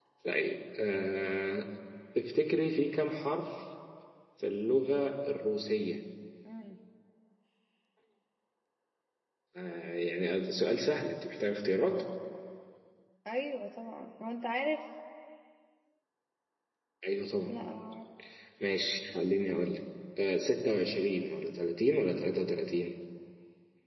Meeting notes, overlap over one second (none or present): none